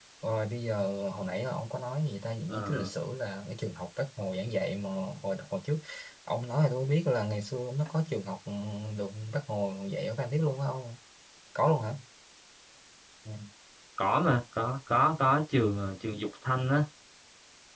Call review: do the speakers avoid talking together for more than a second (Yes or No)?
Yes